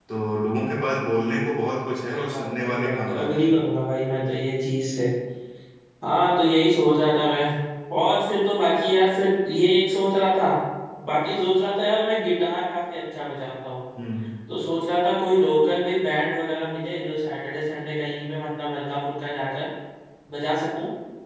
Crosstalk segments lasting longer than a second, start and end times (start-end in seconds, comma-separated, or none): 2.1-3.5